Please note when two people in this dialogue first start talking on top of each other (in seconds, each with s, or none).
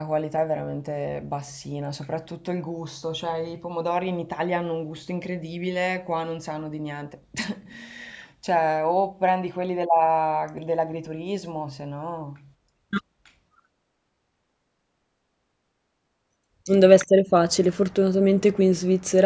none